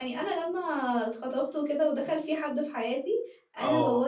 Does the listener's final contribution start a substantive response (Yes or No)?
No